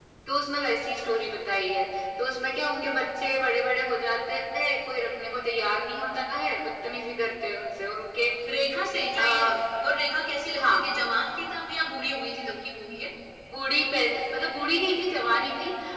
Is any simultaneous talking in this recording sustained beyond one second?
No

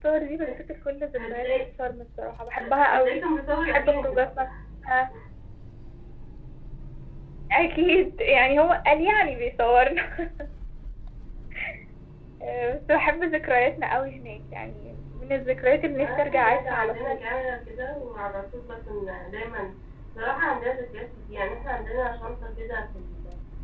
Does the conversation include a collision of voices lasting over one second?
Yes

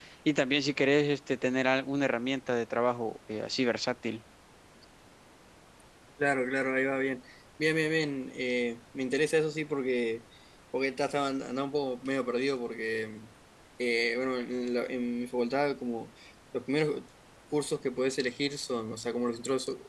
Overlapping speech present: No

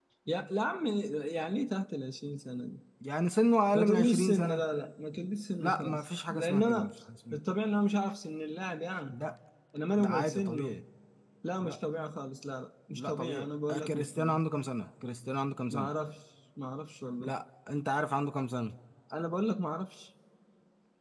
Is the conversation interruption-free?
No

